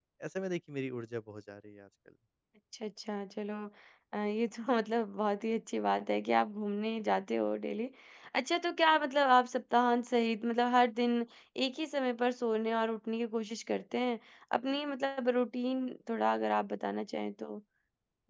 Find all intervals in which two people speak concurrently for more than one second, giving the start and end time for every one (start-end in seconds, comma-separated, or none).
none